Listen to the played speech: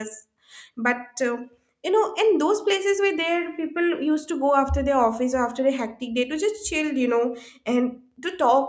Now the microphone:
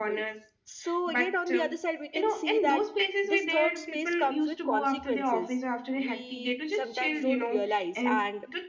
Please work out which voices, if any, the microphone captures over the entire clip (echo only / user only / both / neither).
both